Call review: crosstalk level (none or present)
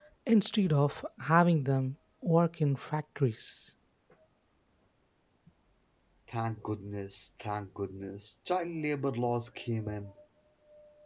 none